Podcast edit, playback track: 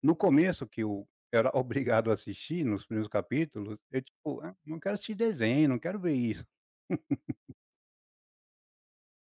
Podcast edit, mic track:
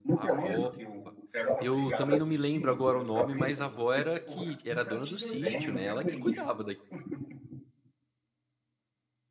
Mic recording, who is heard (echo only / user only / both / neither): both